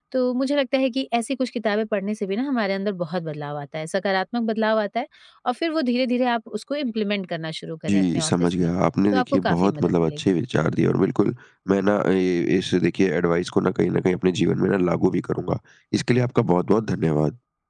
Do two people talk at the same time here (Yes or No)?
Yes